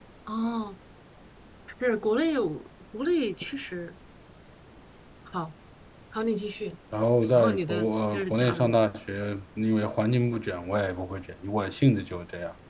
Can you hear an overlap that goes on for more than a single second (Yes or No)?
Yes